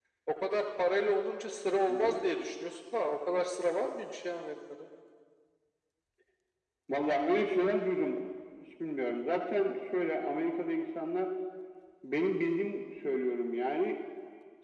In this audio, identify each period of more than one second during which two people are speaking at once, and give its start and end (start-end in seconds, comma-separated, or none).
none